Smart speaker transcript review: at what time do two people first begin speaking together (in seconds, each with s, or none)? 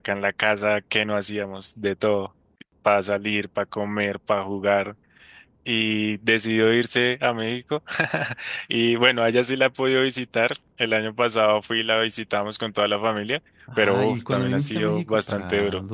13.7 s